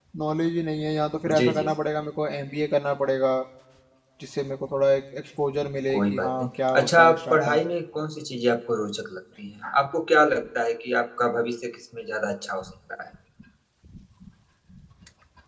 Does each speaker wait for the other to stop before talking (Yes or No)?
No